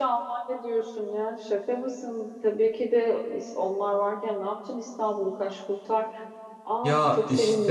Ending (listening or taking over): taking over